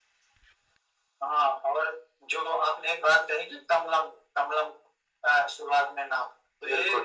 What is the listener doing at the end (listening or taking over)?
listening